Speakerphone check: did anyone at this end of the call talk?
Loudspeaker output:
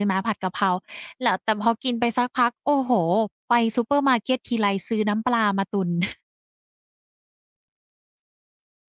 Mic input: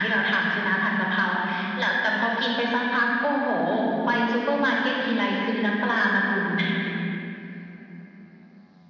No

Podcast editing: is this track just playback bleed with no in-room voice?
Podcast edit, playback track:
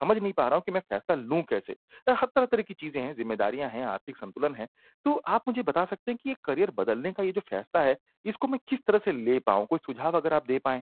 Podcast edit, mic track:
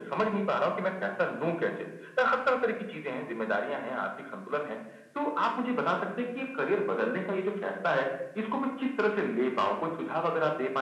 Yes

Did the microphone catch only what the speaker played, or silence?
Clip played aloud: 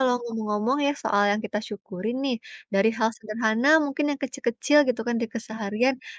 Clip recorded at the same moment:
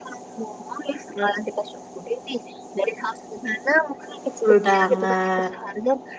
No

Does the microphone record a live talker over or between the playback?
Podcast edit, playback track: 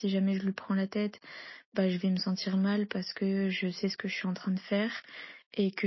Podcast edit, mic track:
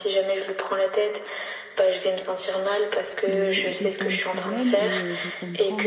Yes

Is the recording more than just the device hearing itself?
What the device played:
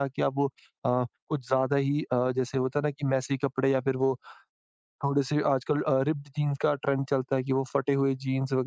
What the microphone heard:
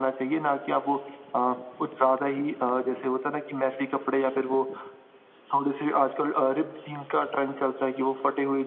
No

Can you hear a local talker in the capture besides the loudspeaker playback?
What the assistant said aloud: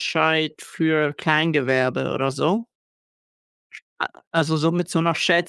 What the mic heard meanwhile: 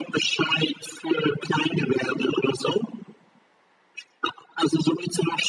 No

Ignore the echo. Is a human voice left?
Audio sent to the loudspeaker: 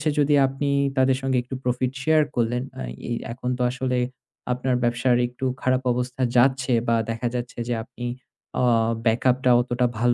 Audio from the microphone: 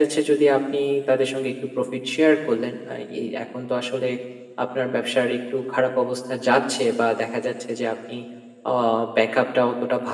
No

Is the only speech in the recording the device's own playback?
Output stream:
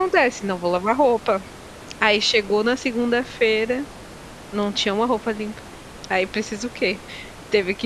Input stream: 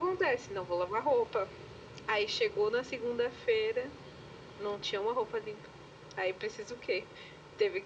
Yes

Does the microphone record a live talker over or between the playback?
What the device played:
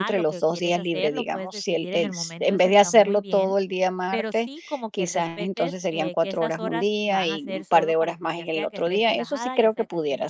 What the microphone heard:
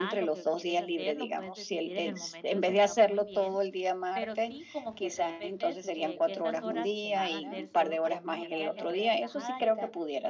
Yes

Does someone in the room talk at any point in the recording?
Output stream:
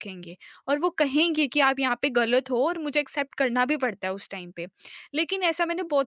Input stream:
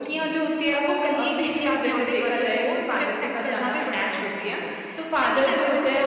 Yes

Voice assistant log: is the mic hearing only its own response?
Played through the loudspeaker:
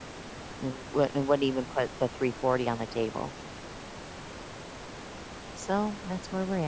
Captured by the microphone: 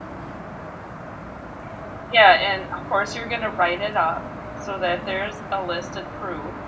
No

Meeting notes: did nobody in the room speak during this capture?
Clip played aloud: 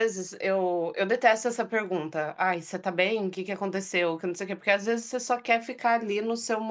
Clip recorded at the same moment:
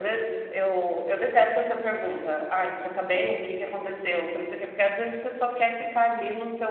Yes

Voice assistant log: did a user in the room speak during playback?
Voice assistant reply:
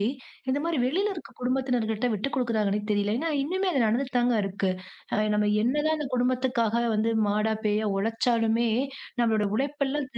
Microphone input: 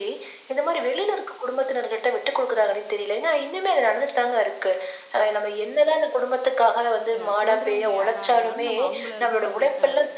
Yes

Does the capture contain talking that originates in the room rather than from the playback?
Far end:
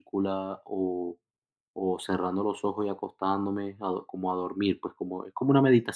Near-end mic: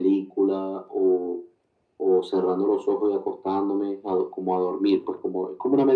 No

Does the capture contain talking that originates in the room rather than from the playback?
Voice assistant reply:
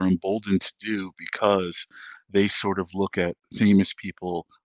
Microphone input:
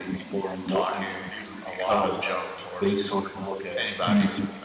Yes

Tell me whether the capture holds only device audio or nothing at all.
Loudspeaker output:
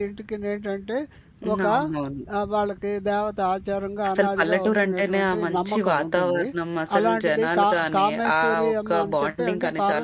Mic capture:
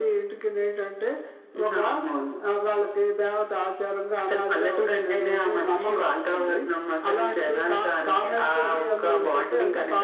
Yes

